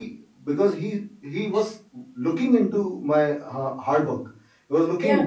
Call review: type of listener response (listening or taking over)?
listening